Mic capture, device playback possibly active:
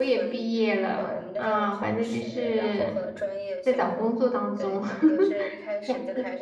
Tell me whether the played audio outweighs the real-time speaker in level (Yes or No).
No